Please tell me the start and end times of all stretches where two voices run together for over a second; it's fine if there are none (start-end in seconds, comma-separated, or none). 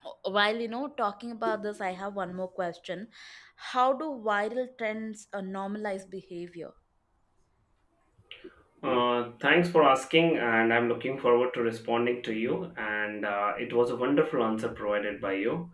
none